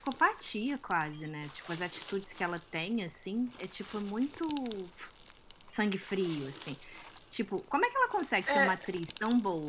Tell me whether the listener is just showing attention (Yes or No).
Yes